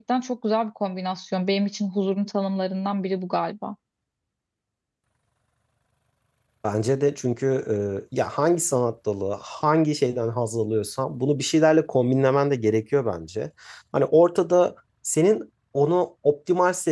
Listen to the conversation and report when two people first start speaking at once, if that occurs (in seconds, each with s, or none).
none